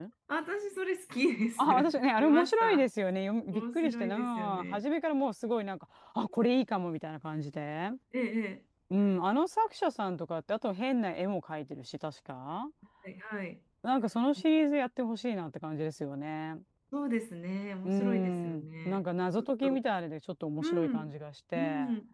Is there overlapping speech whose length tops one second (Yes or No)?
Yes